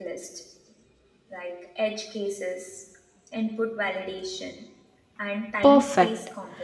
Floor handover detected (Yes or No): Yes